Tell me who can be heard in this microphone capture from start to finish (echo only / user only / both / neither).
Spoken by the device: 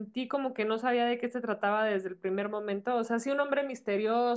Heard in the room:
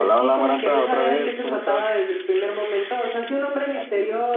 both